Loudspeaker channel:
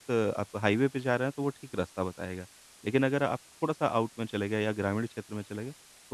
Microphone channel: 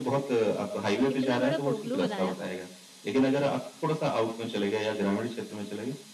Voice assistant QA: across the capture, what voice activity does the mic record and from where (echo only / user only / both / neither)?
both